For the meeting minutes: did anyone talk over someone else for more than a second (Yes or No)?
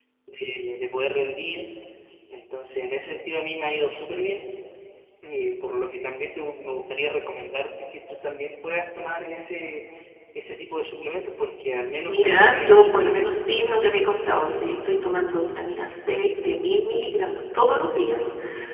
Yes